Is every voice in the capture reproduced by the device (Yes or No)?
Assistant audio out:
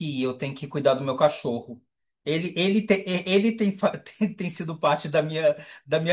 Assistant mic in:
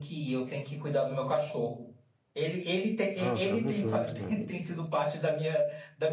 No